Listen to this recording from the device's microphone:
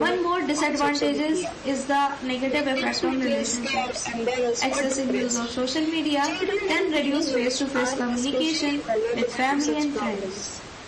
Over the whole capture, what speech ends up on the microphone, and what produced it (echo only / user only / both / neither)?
both